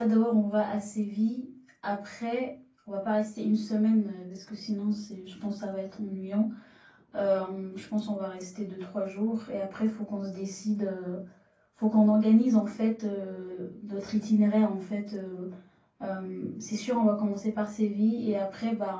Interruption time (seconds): none

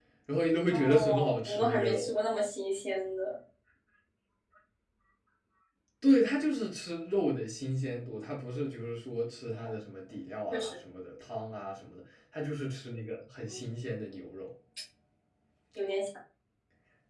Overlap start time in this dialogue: 0.7 s

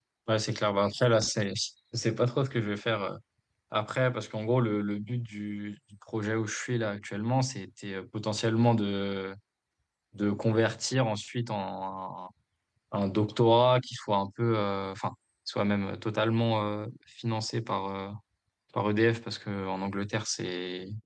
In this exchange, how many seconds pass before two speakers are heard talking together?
none

